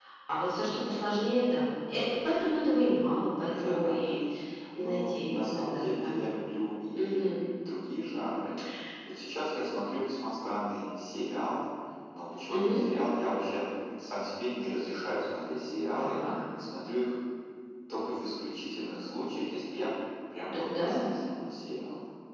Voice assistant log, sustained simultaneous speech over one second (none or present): present